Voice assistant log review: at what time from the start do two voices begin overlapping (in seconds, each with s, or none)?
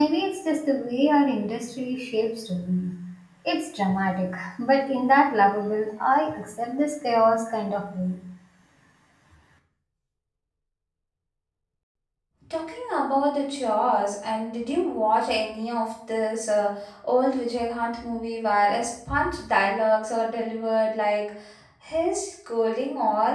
none